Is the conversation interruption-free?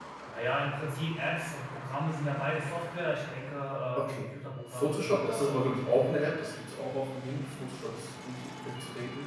No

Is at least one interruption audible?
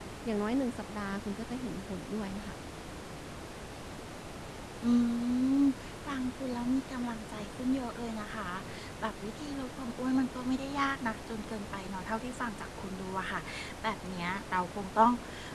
No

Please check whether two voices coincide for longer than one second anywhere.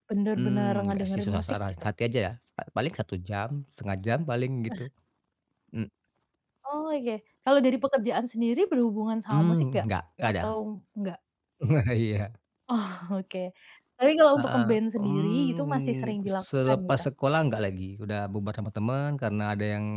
Yes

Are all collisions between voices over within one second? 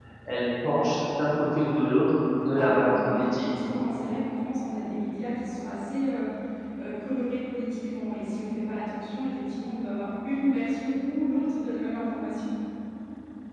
No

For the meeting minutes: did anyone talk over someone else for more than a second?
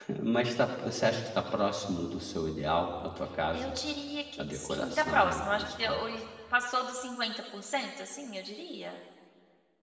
Yes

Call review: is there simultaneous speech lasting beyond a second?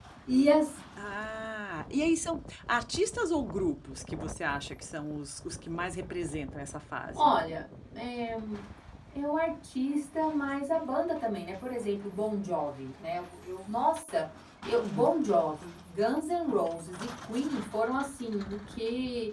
No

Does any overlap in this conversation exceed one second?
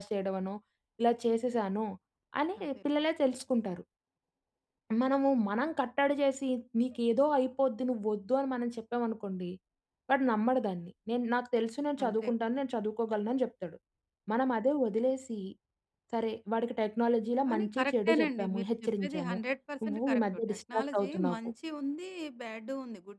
Yes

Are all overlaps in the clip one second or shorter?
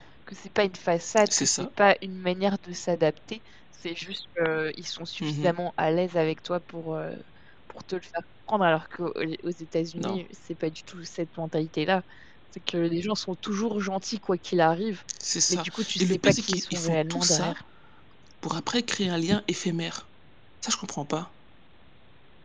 No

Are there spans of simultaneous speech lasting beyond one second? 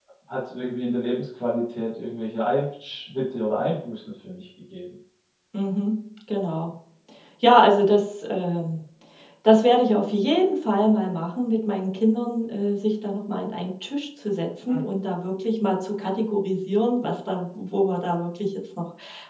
No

